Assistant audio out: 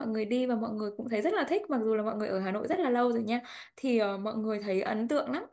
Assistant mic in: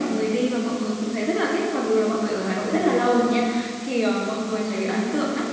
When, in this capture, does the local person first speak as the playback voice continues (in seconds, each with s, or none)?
none